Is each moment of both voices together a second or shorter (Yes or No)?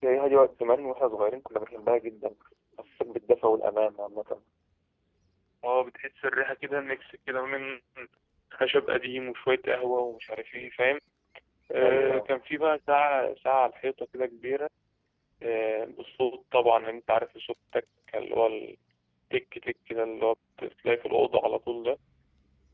Yes